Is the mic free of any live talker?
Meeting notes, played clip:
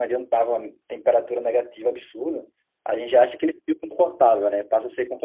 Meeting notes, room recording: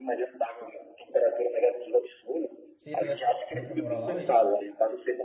No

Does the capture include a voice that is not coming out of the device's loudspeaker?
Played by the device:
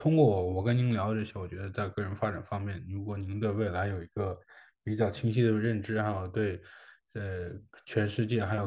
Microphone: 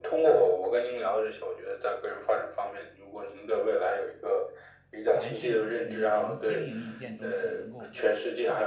Yes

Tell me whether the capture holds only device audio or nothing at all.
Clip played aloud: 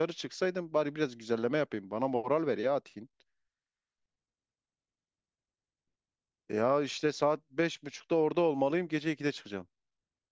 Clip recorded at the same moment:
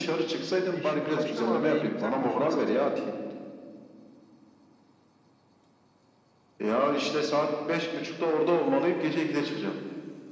No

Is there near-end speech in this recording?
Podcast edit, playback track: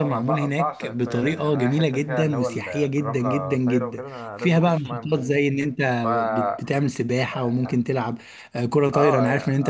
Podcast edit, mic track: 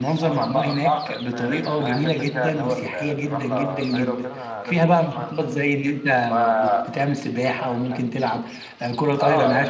No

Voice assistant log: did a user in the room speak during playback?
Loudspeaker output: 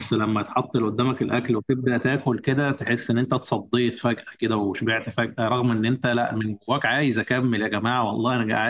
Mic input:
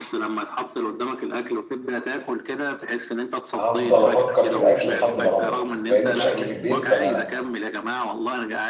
Yes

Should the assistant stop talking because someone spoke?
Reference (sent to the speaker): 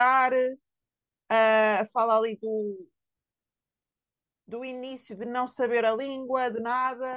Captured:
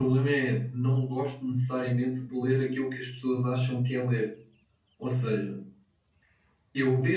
Yes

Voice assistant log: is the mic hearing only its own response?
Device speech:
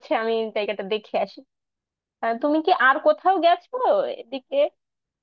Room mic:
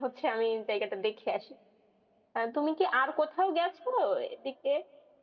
Yes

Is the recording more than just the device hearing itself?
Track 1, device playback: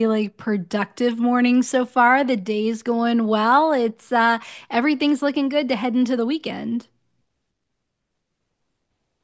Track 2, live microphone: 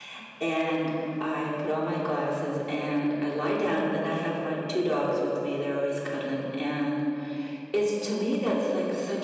Yes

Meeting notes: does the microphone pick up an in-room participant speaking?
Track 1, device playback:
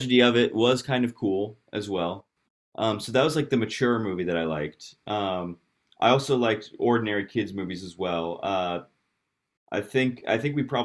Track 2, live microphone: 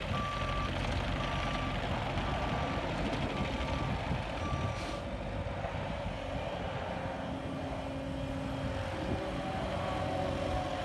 No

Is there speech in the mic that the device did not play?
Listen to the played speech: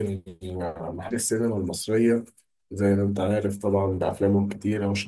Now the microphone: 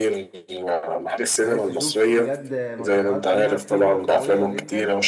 Yes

